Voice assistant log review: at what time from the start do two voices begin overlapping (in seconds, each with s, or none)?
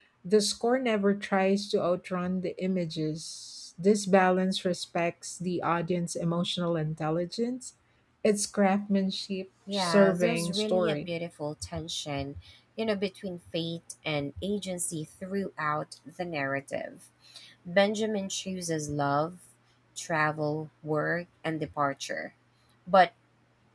9.7 s